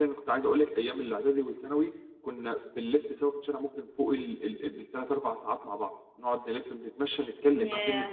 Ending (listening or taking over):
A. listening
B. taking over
A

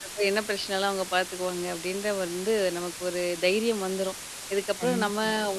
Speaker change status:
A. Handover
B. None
B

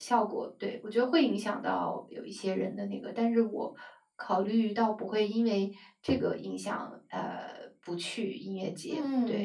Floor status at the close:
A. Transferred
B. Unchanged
A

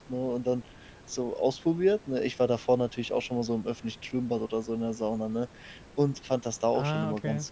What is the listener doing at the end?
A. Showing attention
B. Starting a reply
A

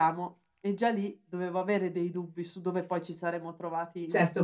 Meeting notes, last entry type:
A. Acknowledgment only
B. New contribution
B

